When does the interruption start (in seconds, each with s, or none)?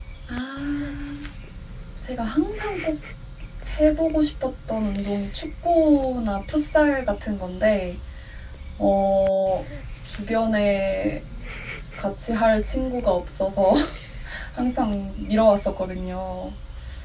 none